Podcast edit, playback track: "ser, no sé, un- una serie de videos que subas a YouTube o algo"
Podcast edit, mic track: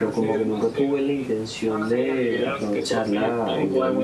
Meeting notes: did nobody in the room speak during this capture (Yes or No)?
No